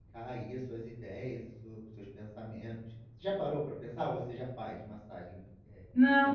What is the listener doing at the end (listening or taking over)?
taking over